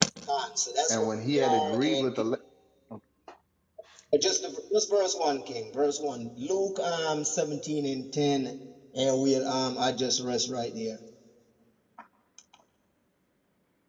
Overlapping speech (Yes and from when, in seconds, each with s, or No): Yes, from 0.9 s